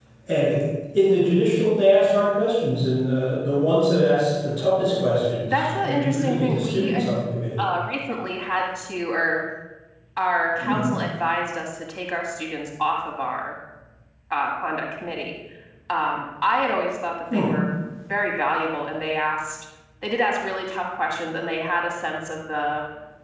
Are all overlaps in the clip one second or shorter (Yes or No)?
No